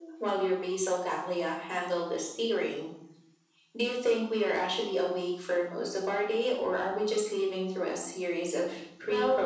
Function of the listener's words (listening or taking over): taking over